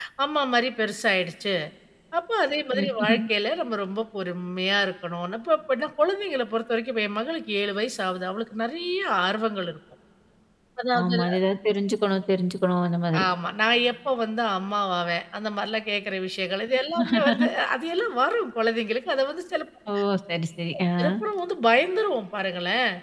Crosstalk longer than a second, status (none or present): none